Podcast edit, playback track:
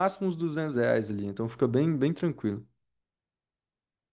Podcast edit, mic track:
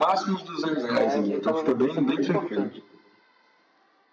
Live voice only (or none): Ah, eu vi, tava vendo que isso é muito importante.